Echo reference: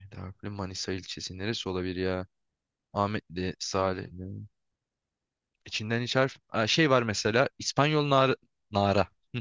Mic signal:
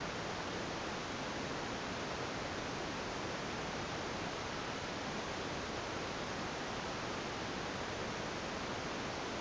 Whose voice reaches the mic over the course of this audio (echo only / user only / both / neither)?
neither